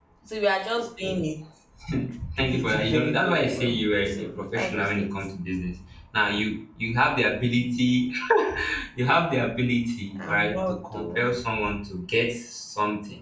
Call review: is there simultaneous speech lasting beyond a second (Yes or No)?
Yes